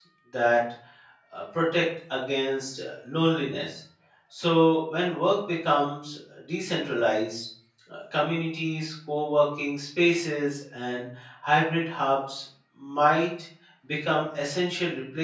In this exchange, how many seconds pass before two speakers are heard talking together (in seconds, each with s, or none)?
none